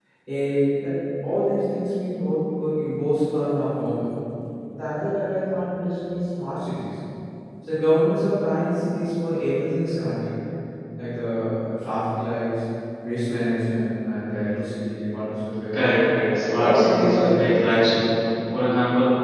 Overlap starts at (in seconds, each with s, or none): 16.5 s